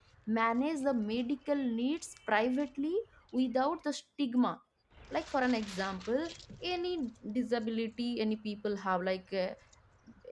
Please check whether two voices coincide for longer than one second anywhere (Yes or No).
No